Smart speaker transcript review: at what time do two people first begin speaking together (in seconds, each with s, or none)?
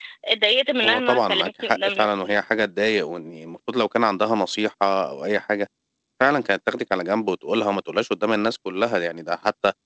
0.8 s